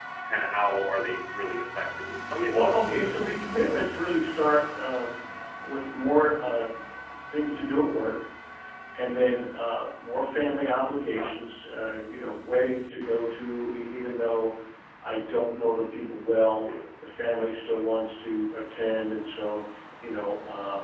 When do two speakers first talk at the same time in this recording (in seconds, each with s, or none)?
2.5 s